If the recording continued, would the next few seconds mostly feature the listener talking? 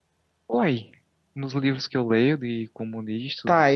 Yes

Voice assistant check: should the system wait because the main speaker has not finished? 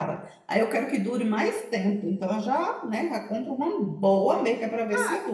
No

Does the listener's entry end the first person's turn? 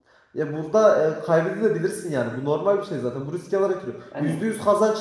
No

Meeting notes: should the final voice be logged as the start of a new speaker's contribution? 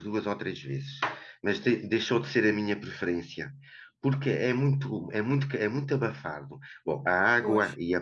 No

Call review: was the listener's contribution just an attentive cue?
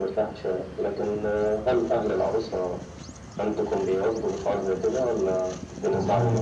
No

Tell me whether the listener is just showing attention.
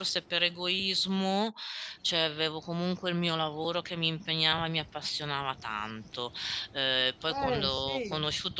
Yes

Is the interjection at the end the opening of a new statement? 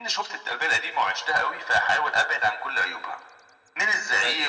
No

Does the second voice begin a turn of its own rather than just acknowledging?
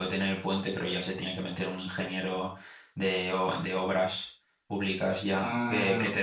No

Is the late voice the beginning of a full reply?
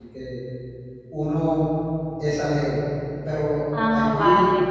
No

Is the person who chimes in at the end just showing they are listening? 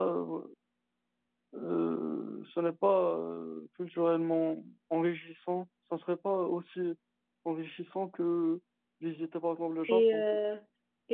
No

